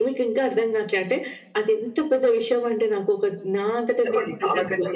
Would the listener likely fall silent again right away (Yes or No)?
No